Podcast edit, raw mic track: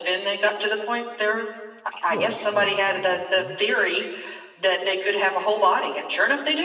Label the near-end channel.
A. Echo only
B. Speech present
B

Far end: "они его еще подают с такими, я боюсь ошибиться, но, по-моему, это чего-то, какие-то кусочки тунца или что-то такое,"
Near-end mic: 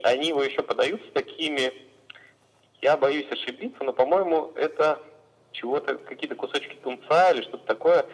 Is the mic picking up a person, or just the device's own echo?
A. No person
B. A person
A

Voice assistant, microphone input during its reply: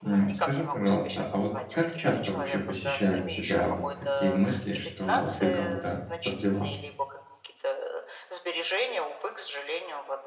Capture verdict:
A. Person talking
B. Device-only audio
A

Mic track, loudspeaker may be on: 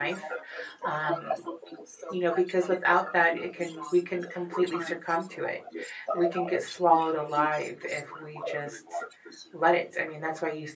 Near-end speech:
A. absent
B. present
B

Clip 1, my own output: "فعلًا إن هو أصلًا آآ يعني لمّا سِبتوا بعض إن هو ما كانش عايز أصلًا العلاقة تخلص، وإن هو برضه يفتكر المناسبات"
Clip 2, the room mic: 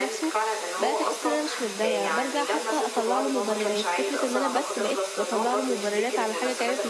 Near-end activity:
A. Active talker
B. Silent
A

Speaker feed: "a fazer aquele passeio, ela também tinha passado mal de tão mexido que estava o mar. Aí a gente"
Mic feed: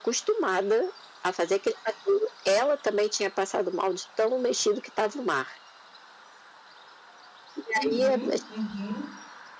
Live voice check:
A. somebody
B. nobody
A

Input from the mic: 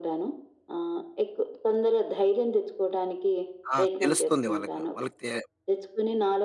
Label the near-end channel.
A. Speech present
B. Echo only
A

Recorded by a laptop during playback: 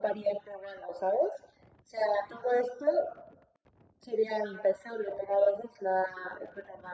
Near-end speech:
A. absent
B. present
A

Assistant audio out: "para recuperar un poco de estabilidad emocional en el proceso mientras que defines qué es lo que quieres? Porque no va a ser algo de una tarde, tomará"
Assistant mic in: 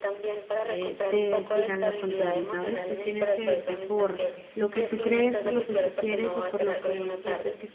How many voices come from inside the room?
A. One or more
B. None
A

